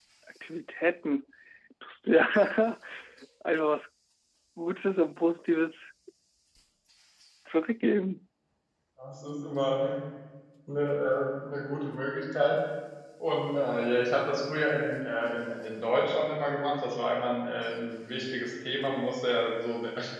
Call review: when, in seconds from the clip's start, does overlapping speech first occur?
none

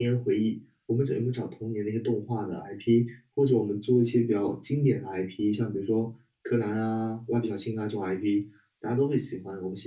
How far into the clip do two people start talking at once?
none

